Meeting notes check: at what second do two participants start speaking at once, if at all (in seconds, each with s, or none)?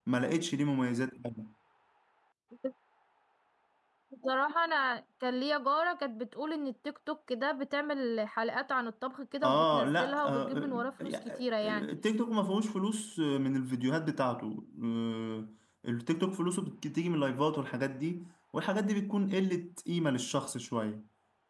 9.4 s